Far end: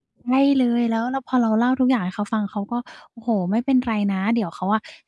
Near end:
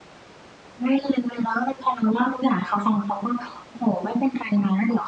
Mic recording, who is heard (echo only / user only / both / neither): echo only